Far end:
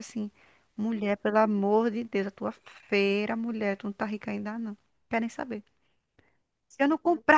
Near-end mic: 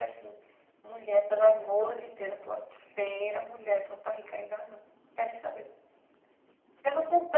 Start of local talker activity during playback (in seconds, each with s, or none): none